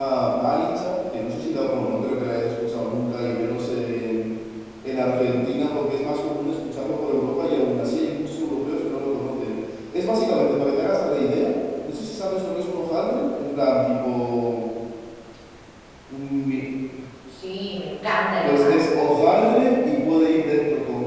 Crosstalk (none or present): present